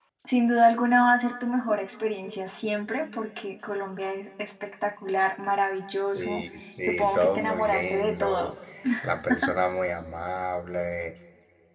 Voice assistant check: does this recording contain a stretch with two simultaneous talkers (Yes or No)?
Yes